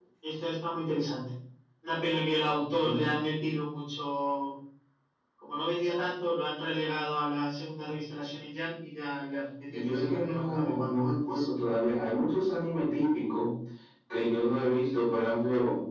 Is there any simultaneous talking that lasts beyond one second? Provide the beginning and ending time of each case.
9.7-11.4

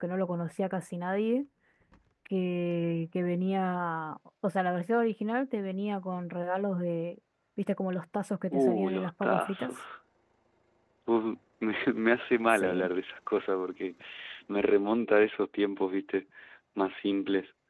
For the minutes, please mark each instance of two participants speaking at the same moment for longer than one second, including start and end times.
8.5-9.8

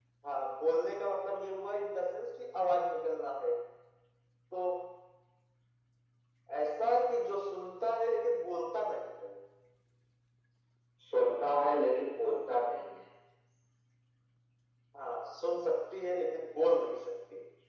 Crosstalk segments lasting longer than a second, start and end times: none

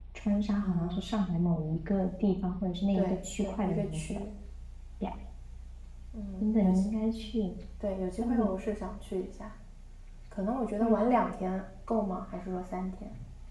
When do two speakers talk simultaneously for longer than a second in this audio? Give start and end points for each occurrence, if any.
2.9-4.2

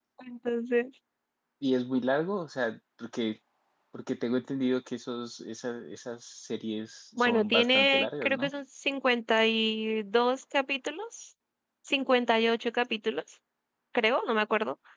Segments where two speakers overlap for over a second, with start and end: 7.2-8.5

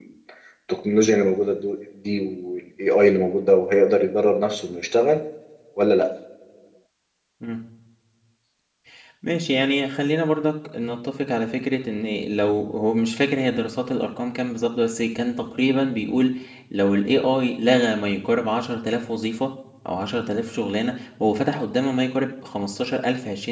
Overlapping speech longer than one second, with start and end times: none

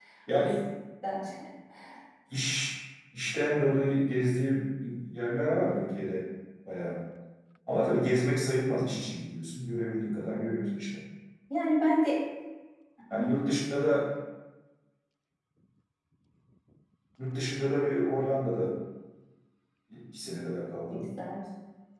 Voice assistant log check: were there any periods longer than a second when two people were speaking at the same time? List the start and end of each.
none

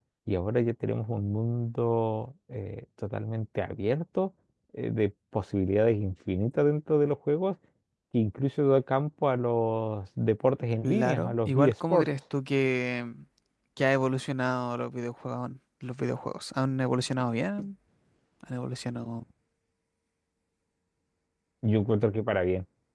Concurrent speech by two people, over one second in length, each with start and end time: 10.8-12.1

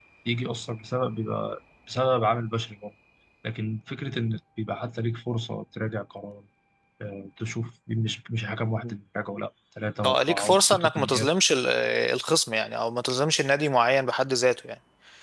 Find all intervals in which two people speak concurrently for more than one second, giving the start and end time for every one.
10.0-11.3

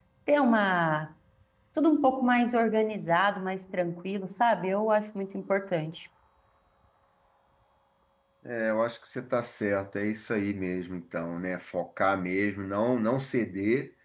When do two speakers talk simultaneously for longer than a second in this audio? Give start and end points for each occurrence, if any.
none

